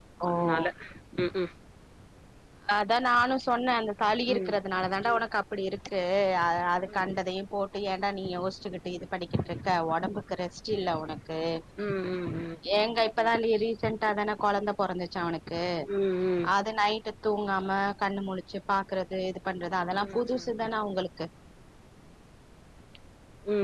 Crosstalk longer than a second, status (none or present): none